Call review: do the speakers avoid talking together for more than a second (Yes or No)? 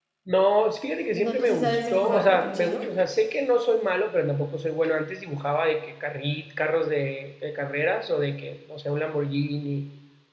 No